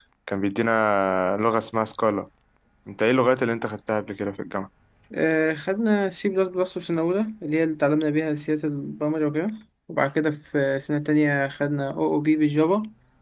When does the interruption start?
none

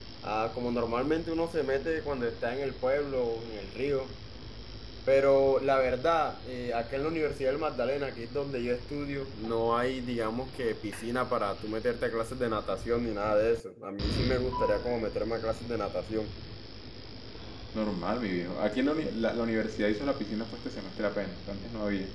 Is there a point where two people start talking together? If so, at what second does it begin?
none

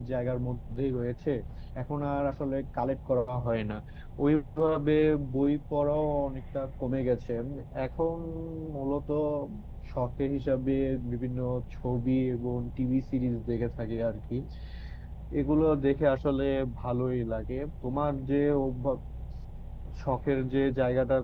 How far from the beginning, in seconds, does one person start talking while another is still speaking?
none

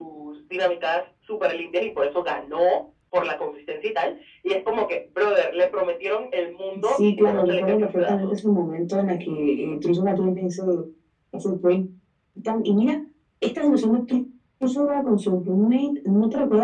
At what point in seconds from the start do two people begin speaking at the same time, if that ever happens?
7 s

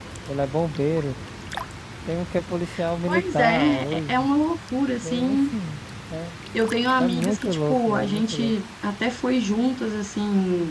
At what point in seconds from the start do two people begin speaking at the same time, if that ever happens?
3 s

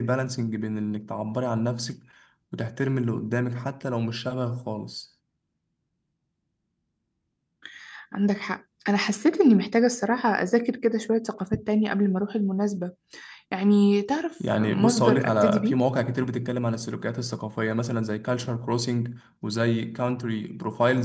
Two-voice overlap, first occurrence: 14 s

